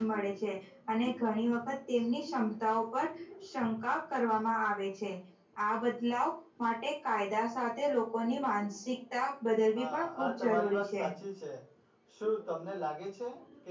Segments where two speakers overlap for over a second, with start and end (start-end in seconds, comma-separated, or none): 9.8-11.0